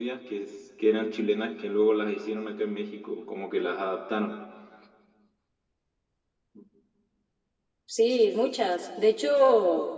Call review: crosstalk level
none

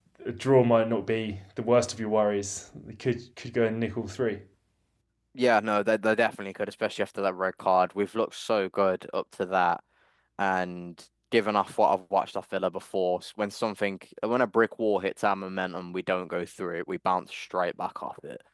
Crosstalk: none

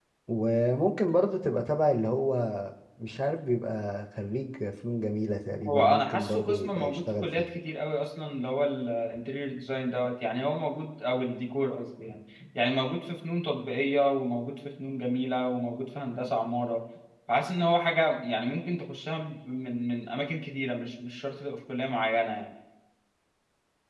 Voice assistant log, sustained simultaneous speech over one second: present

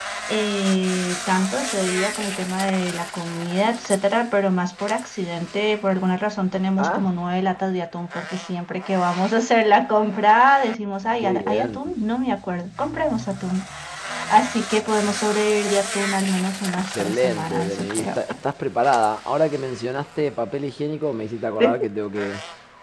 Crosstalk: present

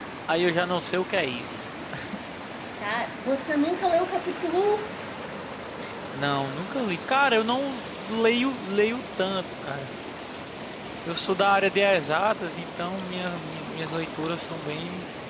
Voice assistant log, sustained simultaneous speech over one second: none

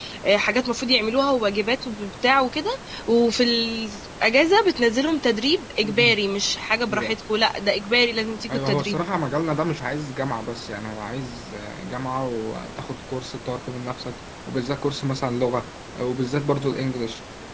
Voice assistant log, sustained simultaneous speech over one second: none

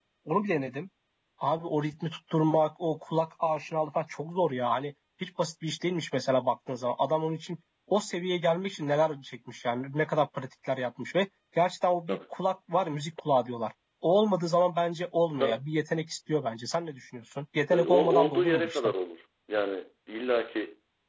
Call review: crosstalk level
present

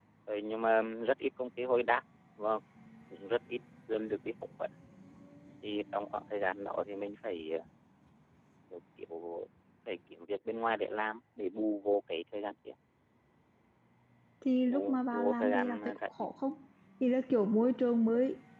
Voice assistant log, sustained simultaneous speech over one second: present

